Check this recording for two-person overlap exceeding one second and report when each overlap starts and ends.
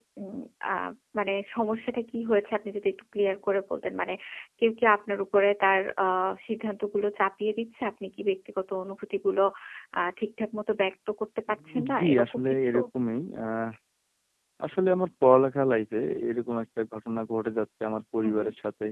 11.5-12.7

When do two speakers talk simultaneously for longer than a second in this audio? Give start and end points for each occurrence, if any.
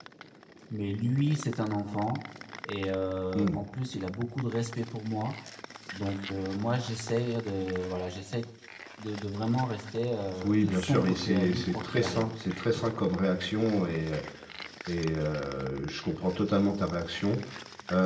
10.4-12.2

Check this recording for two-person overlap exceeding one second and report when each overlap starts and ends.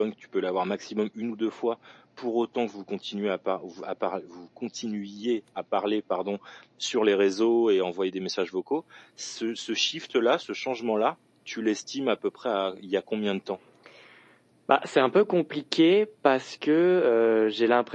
none

